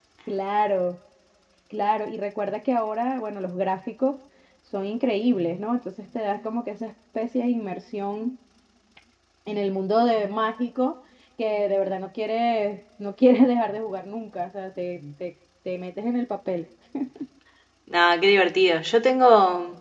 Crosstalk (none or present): none